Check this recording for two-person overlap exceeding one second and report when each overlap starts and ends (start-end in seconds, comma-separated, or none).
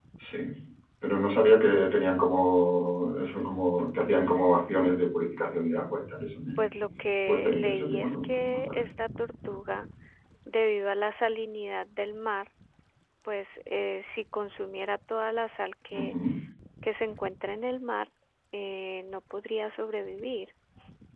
7.3-8.8